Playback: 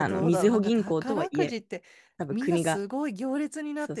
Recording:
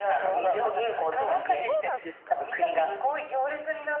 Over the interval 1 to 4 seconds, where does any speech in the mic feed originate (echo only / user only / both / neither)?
both